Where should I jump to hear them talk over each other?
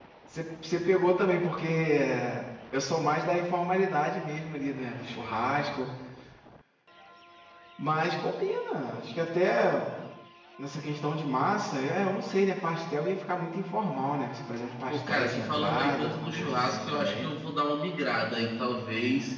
14.9 s

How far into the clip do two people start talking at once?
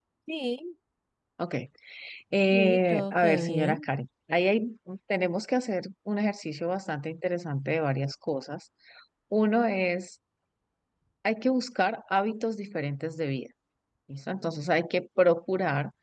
2.5 s

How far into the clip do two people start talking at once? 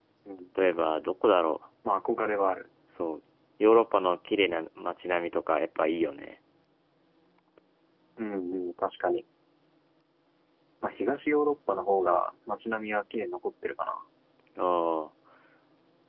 none

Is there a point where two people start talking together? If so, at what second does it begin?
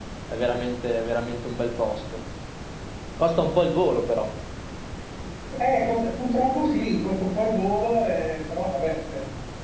none

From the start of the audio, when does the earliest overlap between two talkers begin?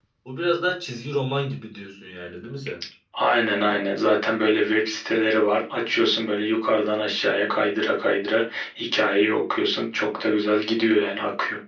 none

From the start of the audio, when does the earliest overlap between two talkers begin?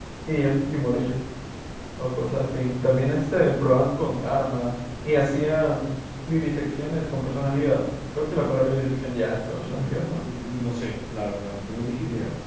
none

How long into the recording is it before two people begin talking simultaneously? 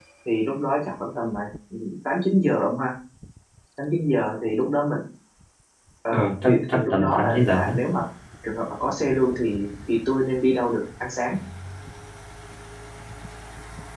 6.1 s

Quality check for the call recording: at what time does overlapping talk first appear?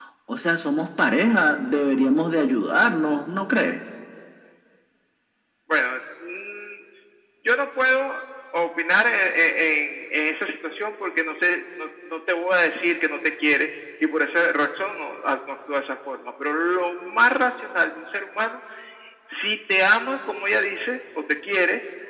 none

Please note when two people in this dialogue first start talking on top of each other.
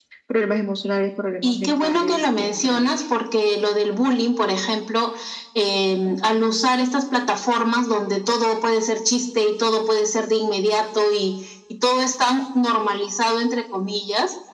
1.4 s

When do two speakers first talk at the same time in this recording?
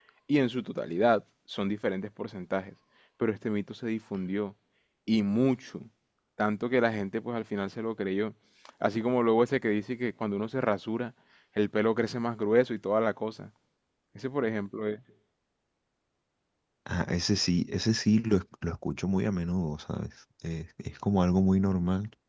none

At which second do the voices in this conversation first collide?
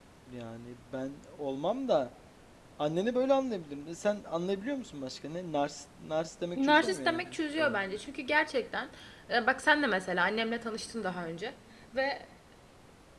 6.6 s

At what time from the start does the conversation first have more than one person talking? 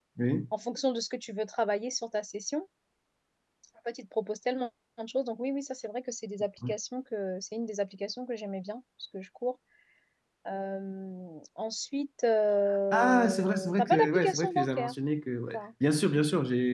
12.9 s

